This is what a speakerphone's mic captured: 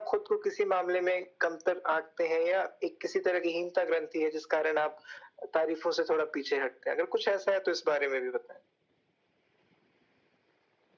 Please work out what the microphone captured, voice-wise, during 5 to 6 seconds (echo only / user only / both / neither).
echo only